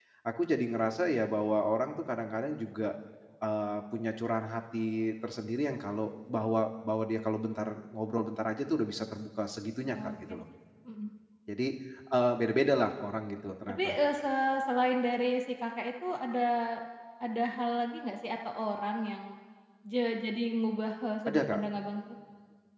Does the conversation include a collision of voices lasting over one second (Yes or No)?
No